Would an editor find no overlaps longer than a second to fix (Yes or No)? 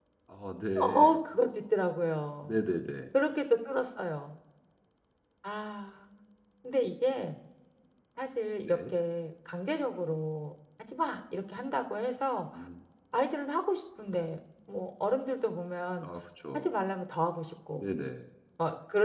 Yes